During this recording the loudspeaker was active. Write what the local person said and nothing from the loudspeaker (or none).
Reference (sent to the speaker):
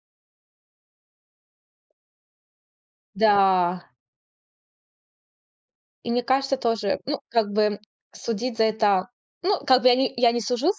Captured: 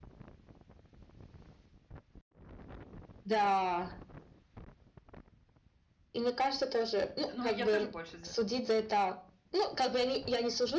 Ну, я тоже больше за.